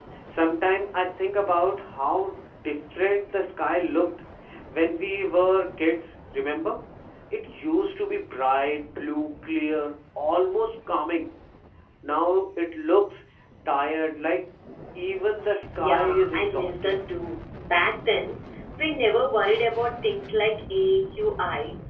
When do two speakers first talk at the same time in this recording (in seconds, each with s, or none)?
15.8 s